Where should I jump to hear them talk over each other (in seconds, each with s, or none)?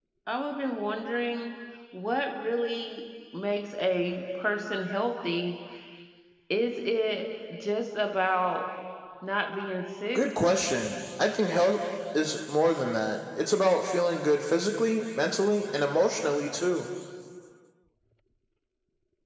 none